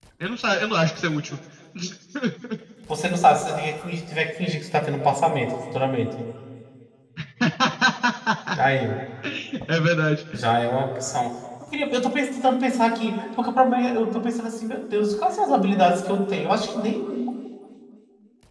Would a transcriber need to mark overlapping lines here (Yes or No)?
No